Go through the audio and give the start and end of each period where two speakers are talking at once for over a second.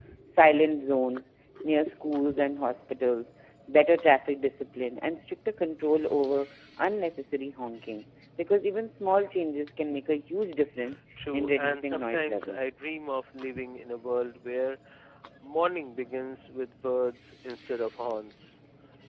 11.3-12.6

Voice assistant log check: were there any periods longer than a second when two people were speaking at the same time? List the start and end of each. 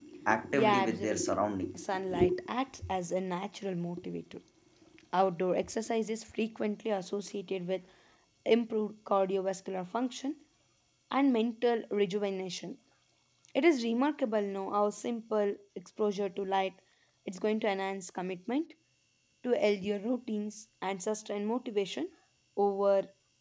0.5-1.7

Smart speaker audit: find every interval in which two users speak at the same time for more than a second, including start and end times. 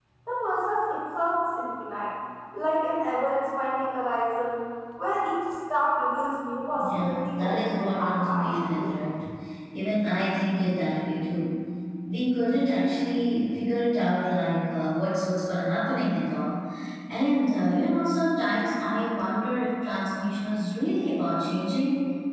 6.7-8.9

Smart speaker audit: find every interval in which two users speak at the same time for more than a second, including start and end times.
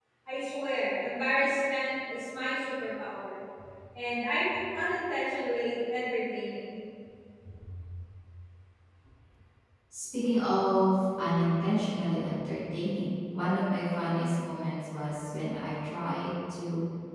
none

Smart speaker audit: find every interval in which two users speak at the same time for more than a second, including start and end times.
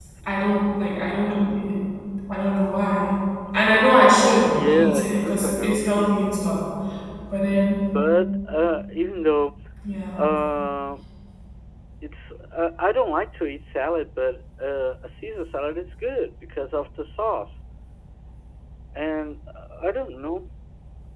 4.5-6.2

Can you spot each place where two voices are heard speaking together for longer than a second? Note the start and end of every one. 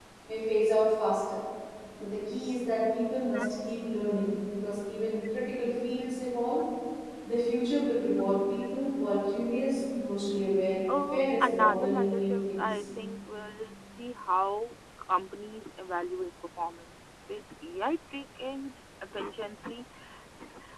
10.9-12.8

